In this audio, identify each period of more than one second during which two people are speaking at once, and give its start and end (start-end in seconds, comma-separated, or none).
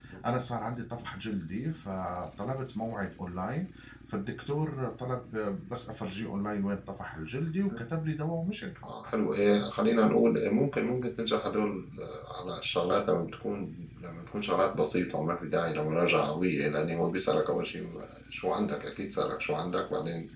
none